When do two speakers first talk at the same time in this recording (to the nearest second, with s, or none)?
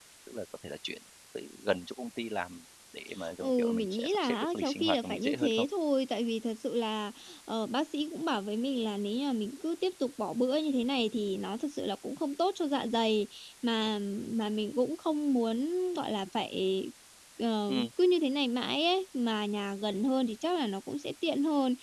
3 s